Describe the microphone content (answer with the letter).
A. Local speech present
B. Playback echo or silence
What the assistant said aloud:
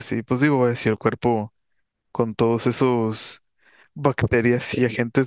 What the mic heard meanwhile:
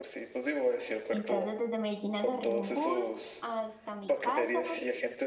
A